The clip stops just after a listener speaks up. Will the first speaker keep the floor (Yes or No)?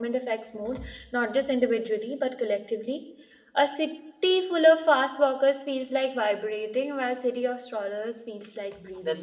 No